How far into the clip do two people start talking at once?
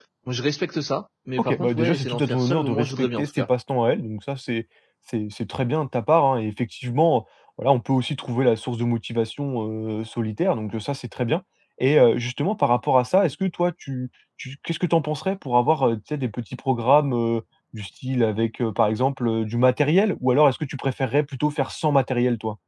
1.4 s

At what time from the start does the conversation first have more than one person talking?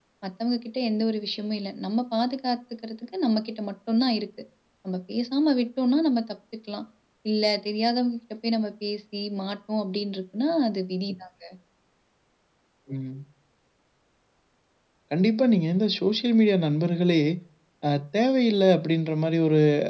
none

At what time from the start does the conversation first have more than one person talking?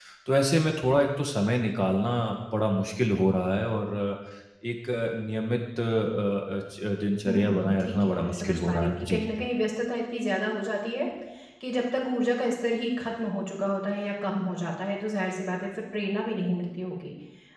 7.2 s

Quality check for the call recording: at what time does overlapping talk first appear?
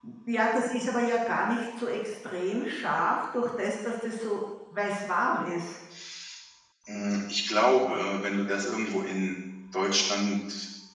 none

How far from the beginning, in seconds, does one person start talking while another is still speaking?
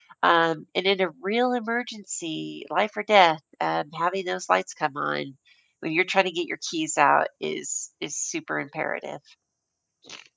none

